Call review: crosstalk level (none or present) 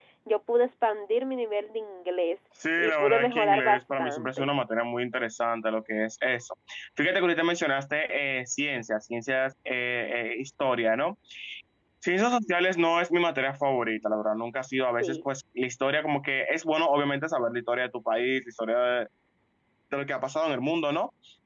present